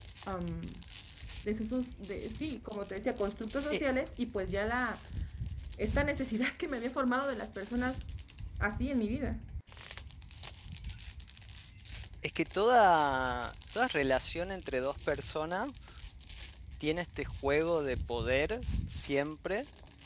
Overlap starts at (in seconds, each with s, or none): none